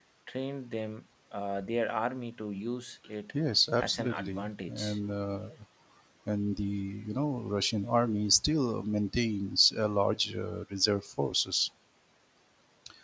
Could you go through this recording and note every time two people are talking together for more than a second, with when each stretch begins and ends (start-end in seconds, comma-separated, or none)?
3.8-5.0